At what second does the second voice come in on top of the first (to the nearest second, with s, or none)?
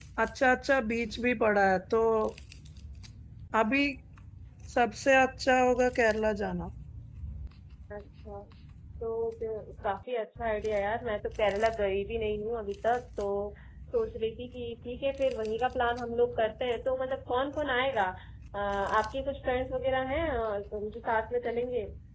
none